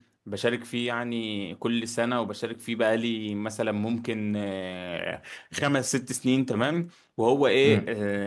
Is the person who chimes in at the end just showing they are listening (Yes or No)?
Yes